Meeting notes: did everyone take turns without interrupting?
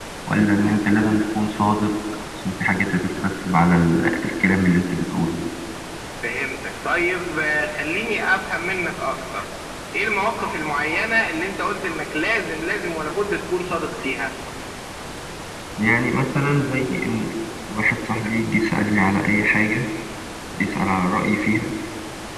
Yes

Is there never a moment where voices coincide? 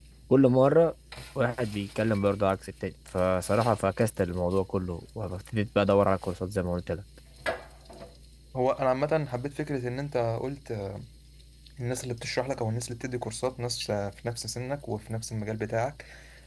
Yes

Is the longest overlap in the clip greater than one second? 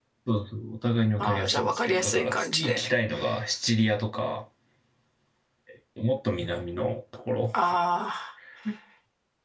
Yes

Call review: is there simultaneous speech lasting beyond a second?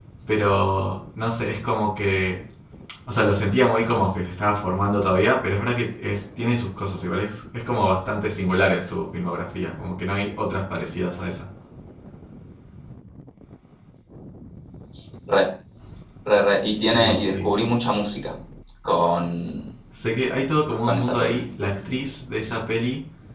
No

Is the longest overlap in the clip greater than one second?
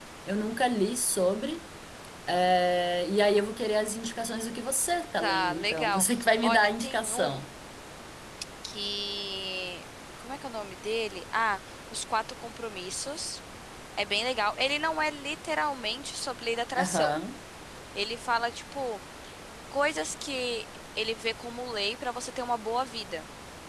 Yes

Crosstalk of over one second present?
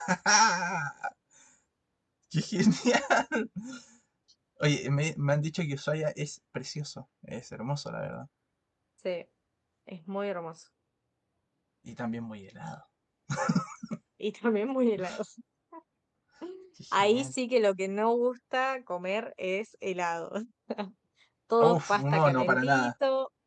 Yes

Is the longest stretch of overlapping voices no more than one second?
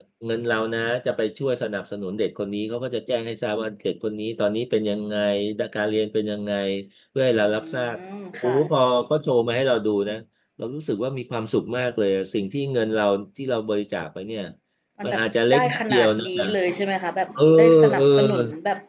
No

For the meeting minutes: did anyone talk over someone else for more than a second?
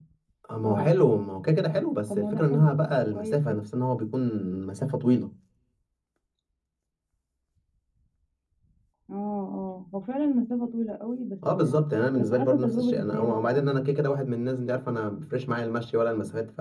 Yes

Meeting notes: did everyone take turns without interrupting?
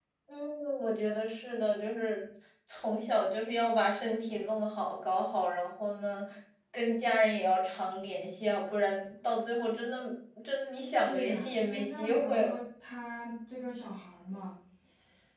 No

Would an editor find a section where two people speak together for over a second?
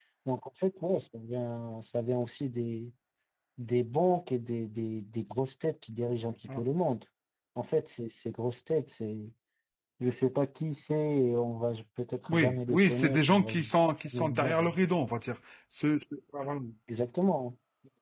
Yes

